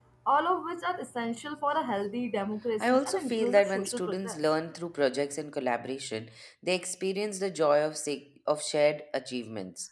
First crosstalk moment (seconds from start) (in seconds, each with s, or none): 2.8 s